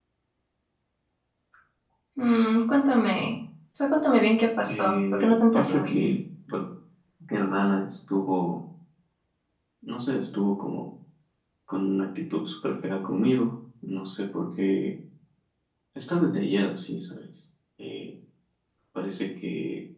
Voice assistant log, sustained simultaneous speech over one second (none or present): present